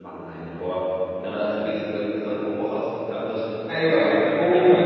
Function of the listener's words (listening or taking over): taking over